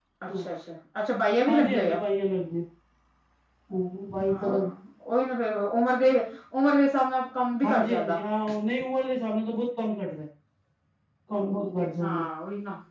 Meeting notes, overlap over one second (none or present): none